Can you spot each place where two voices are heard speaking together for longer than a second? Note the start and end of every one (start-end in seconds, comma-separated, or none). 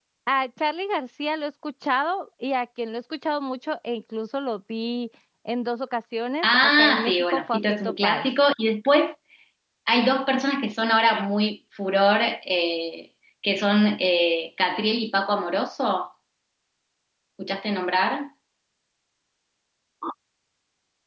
6.4-8.3